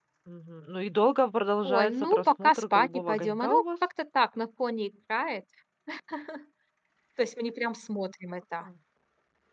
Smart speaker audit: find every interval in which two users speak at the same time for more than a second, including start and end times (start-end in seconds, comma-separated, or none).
1.7-3.6